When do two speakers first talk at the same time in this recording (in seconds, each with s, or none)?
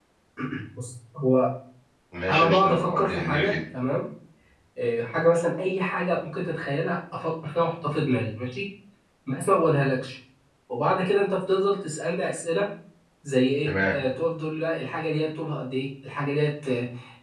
2.3 s